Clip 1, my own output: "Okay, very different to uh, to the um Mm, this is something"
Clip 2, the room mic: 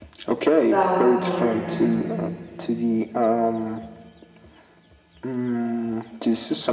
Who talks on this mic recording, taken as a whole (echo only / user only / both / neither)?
both